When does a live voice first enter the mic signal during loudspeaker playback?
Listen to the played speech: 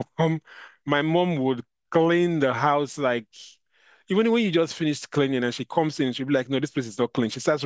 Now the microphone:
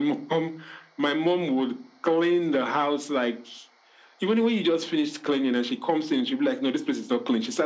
none

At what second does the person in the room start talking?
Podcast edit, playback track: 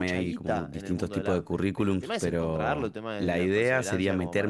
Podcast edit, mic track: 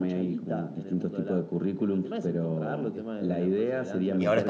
2.9 s

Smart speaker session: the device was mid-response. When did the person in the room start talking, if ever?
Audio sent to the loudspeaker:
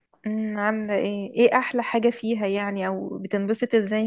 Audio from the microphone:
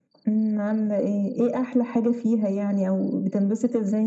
none

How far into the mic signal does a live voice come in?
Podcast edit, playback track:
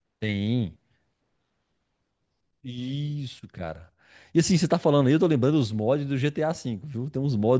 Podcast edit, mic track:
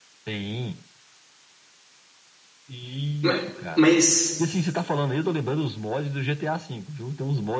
3.2 s

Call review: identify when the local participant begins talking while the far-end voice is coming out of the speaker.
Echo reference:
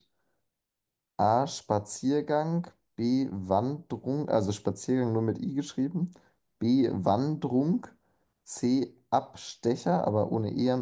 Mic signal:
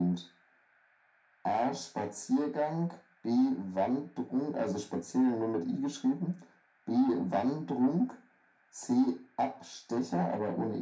none

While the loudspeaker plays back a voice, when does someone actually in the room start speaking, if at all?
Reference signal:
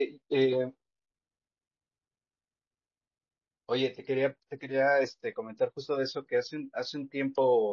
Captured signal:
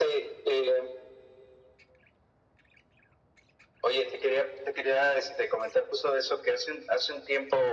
none

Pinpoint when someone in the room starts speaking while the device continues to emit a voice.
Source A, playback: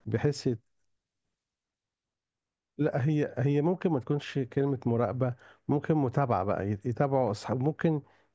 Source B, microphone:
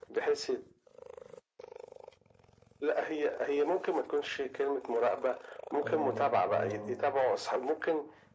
5.8 s

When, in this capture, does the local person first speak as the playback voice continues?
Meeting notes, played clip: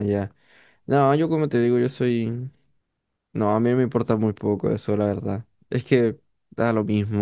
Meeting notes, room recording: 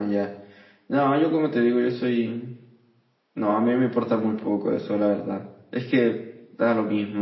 none

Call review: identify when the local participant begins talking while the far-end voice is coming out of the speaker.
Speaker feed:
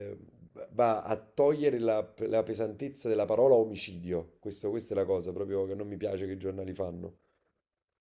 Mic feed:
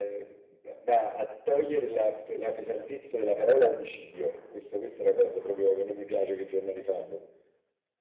none

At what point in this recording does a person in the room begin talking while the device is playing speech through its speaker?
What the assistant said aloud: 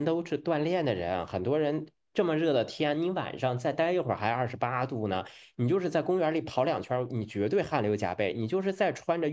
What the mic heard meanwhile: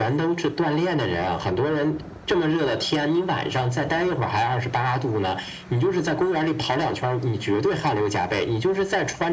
none

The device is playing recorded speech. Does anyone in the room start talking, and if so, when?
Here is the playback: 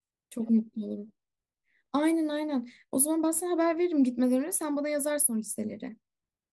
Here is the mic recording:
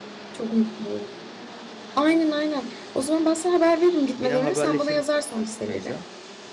4.2 s

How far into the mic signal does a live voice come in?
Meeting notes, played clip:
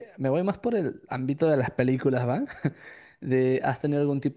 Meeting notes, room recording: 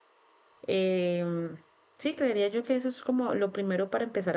0.6 s

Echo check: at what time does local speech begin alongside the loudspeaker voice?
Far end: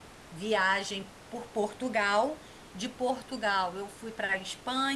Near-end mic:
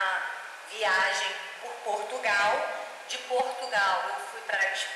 none

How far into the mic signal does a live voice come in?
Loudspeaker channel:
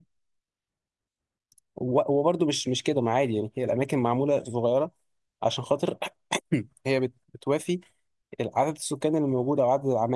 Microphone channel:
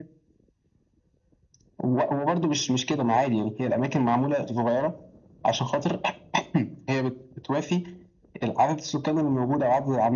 none

